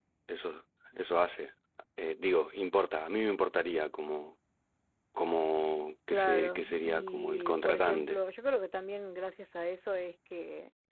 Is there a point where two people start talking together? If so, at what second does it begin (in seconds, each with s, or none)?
6.1 s